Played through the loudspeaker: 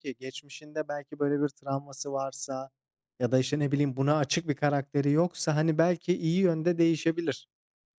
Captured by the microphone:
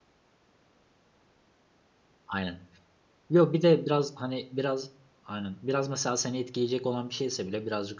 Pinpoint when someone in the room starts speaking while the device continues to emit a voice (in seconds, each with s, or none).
2.3 s